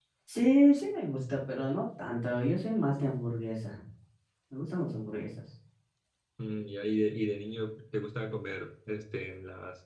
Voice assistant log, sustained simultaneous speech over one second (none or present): none